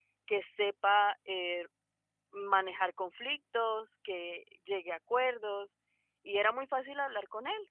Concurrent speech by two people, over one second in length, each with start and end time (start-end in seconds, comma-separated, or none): none